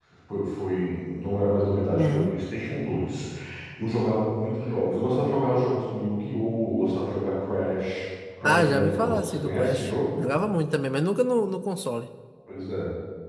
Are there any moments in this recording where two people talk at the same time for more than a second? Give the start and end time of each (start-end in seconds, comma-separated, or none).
8.4-10.2